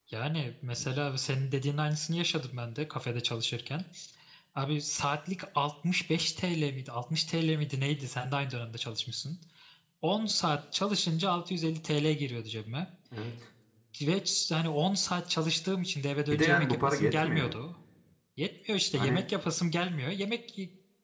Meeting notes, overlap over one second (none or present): present